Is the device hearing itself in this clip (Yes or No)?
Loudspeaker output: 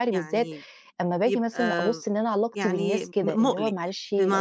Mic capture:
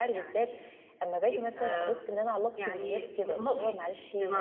Yes